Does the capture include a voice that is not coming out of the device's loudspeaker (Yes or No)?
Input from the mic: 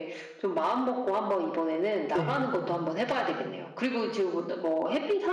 Yes